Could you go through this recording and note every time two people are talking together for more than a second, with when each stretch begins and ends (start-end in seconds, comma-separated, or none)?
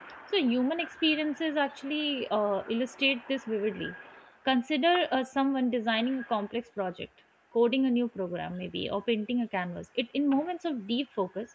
none